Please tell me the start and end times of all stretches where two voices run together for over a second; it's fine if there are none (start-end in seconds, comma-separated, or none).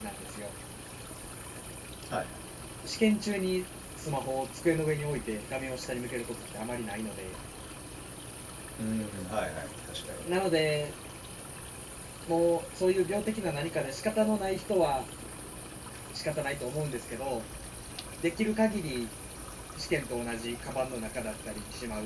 none